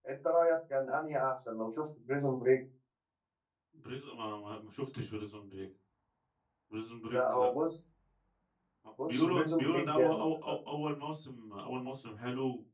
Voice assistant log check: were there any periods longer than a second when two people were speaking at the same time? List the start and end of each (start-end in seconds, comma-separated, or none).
9.1-10.6